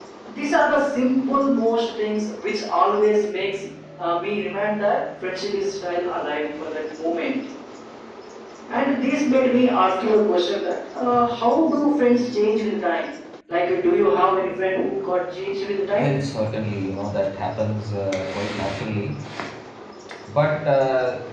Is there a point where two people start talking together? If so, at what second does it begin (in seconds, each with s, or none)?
none